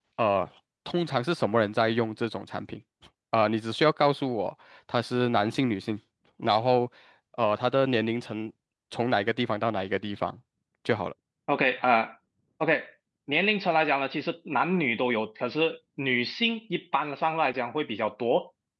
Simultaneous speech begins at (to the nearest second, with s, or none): none